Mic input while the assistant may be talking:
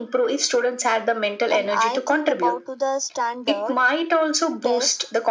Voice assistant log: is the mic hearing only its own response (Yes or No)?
No